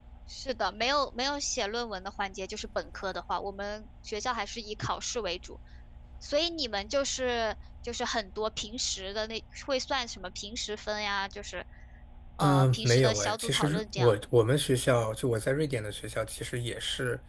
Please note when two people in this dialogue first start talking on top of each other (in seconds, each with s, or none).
12.4 s